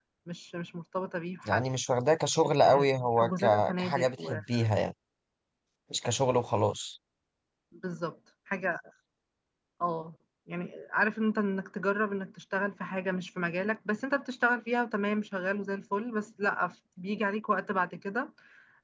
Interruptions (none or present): present